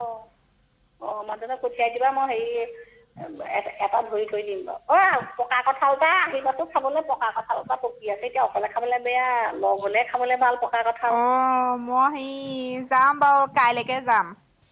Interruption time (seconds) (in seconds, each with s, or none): none